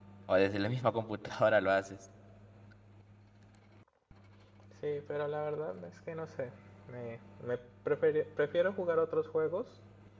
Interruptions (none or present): none